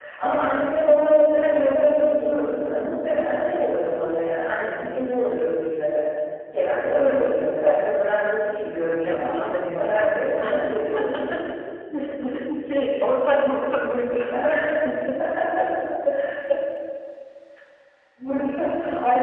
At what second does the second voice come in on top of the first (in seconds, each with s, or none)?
9.0 s